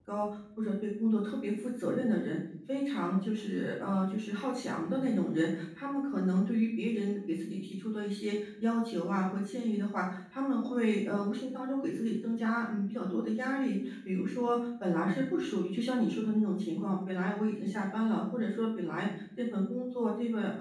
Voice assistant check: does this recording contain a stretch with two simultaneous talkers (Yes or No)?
No